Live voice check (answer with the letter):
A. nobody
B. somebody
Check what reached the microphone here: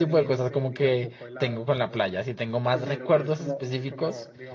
B